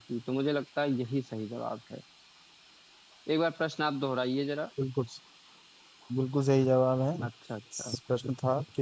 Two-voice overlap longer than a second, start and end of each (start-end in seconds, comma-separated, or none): none